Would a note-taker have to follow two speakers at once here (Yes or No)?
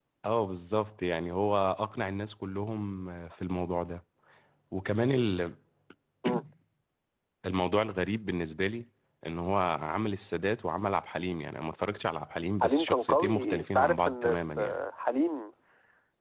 Yes